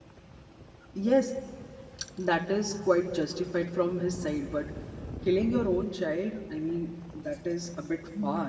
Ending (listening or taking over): taking over